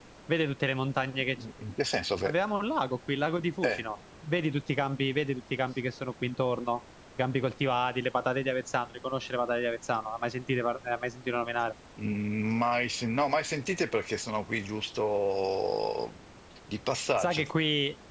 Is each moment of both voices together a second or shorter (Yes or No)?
Yes